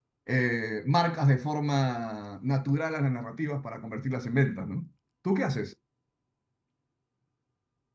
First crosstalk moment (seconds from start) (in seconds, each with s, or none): none